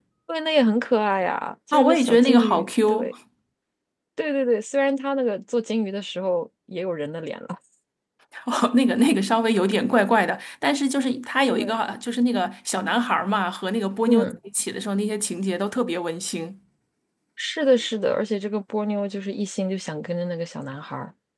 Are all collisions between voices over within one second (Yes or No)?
No